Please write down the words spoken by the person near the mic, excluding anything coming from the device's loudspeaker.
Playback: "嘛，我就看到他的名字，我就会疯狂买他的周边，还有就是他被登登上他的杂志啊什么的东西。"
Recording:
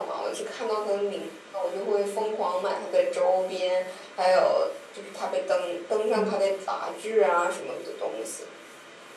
嗯

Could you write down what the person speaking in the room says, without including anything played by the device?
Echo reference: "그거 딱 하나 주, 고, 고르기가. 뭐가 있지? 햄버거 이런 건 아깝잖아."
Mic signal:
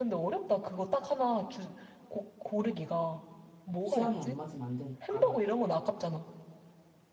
취향이 안 맞으면 안 되니까

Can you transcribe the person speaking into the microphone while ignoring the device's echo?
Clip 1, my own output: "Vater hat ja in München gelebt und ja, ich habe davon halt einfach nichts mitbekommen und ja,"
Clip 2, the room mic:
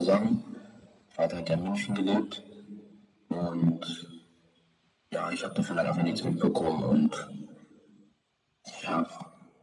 Mhm.

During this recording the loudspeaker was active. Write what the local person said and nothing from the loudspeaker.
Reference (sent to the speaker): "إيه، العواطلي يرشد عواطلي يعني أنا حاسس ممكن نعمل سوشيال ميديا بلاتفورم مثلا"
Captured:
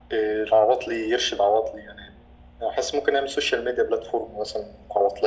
none

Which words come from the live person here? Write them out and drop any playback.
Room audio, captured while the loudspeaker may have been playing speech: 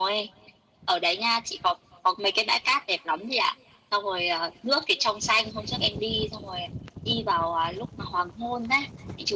none

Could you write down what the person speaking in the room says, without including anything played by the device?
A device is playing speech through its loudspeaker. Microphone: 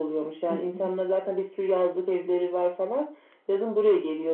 Hı hı.

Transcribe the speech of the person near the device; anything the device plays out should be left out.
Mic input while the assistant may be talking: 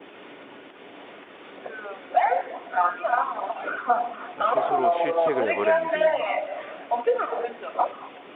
아, 스스로 실책을 해버렸네 지금

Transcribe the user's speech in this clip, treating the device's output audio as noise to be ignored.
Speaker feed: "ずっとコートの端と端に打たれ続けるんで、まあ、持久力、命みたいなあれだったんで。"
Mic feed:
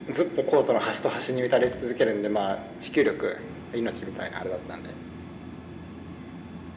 none

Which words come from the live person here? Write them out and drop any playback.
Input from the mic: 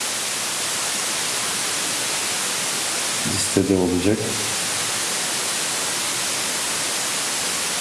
listede olacak

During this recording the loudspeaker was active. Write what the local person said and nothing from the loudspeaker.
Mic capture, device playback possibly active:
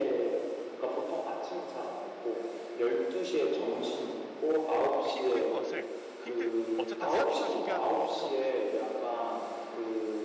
힘든 것을 힘들 어쨌든 산소를 소비하는 거여서

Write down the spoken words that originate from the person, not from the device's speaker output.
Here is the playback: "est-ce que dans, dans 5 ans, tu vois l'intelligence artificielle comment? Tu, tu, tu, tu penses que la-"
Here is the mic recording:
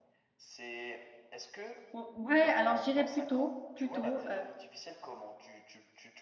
Ou ouais, alors je plutôt, plutôt. tôt,

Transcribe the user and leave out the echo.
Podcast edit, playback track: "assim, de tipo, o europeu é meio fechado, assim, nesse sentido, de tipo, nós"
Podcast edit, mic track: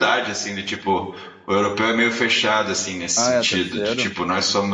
ah, é terceiro?

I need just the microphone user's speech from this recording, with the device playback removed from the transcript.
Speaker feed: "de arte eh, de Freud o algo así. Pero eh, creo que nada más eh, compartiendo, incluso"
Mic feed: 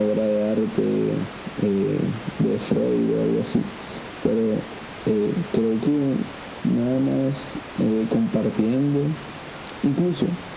none

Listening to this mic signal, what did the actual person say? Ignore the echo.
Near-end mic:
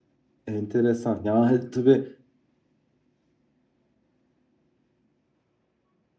Enteresan. Ya tabii

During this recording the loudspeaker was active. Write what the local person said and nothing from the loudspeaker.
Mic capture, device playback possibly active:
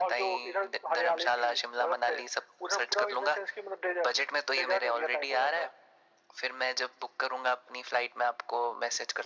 none

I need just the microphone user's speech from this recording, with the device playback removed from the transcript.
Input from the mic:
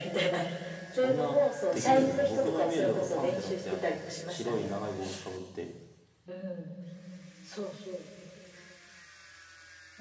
そんな、できるんですか僕のイメージだとパンってだって、あの、白い長い帽子かぶって、

